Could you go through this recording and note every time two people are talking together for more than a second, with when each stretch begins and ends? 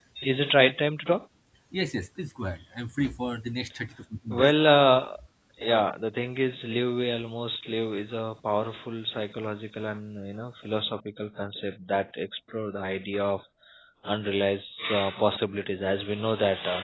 none

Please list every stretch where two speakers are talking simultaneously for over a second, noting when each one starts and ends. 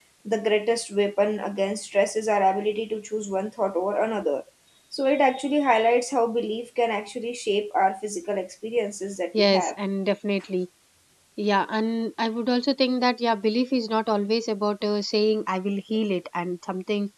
none

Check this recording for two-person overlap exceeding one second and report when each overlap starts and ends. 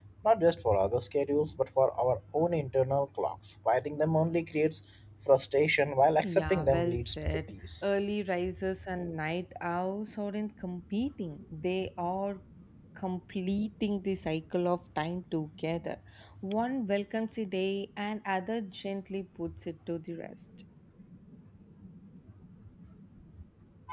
6.4-7.8

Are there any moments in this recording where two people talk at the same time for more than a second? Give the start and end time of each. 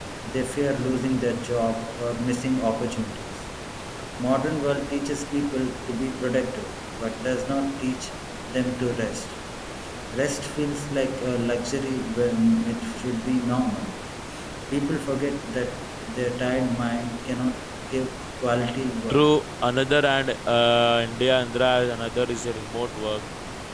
none

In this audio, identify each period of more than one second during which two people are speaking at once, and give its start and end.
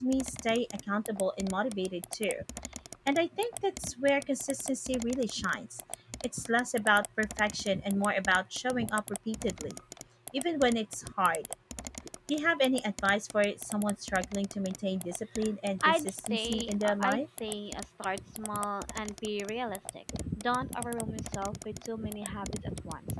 15.8-17.2

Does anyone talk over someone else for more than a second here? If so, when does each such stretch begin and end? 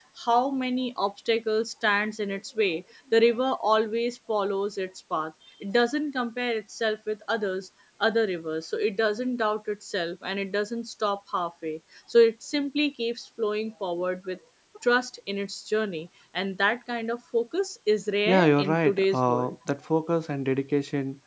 18.3-19.5

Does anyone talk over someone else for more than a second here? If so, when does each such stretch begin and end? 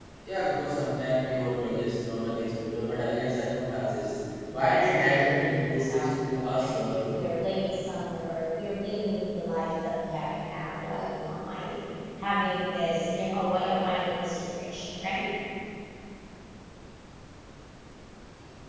4.6-6.1

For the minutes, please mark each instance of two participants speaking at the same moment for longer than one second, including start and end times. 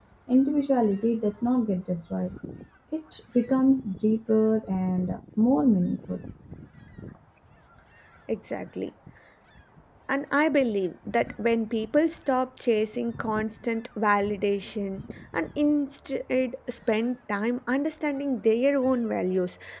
none

